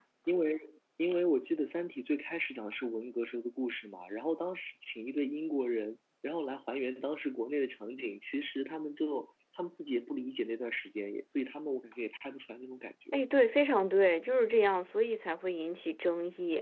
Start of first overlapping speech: none

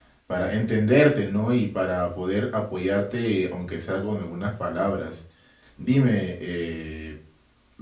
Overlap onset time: none

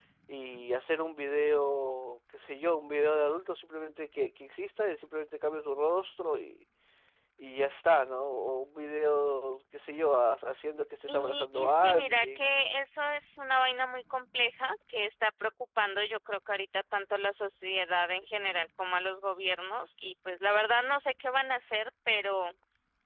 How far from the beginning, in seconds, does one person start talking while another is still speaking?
11.1 s

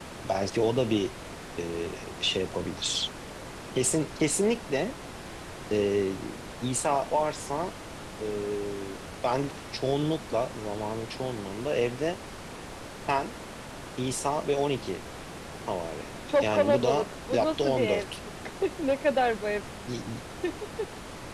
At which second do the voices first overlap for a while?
16.4 s

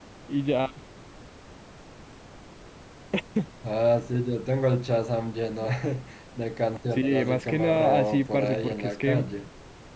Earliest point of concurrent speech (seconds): 7.0 s

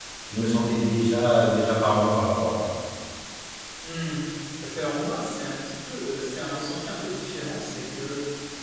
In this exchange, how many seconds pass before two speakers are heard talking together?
none

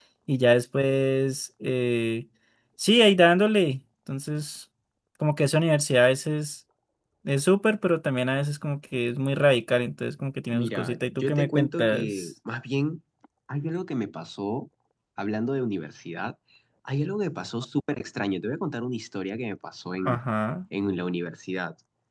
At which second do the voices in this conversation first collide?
10.5 s

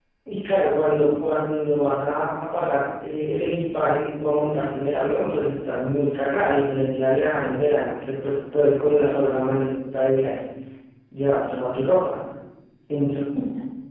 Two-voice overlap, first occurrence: none

